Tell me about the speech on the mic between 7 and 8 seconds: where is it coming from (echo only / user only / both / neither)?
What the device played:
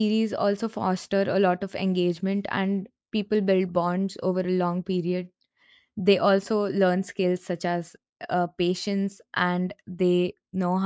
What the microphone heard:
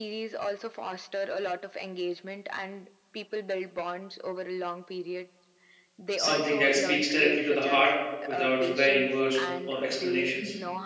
both